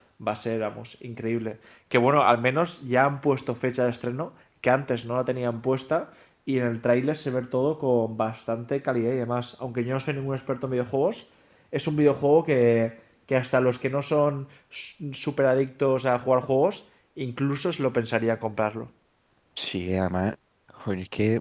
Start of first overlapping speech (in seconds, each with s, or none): none